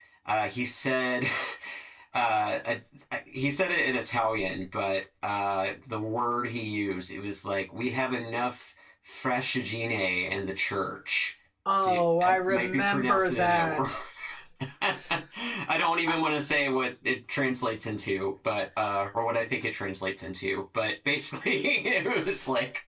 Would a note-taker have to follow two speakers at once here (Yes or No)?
Yes